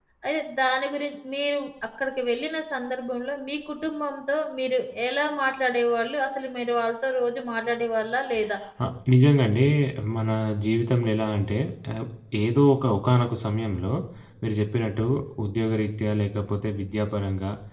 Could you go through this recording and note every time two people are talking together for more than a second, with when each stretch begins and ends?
none

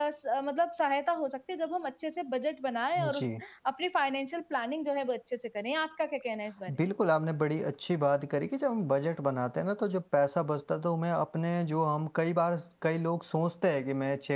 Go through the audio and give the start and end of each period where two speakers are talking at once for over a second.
none

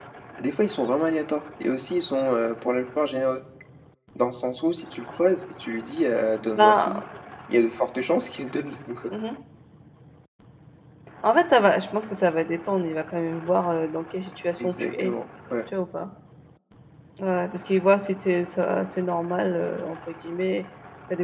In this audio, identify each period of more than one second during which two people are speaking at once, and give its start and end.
none

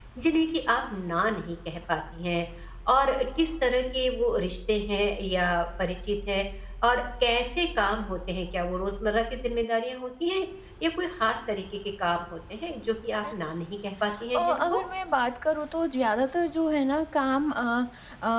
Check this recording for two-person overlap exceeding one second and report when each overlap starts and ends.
none

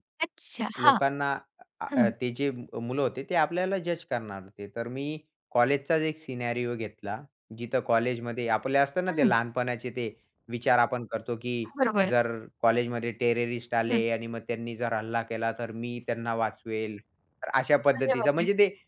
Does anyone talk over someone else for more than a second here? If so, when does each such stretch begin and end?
none

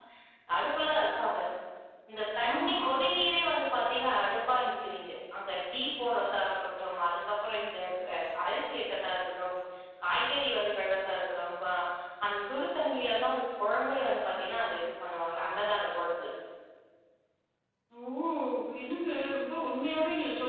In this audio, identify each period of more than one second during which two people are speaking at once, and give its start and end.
none

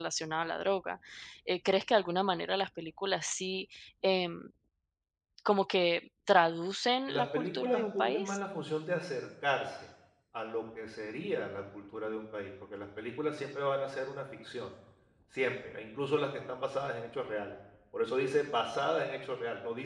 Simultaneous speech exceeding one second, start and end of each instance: 7.1-8.4

